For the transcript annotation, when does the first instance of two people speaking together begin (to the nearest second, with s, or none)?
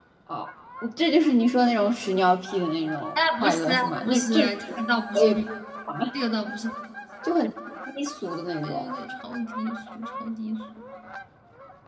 3 s